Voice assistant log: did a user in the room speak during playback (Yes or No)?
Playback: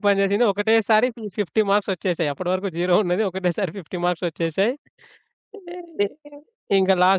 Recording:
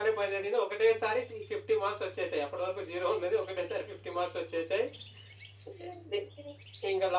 No